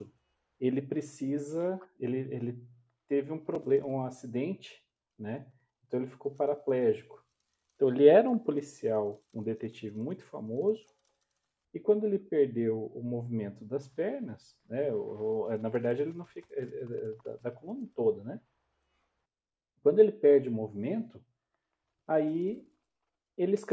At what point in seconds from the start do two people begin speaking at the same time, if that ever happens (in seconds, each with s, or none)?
none